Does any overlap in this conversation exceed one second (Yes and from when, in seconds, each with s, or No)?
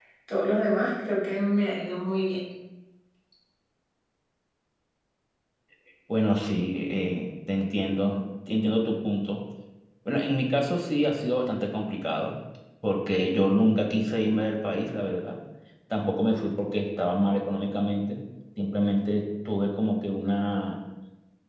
No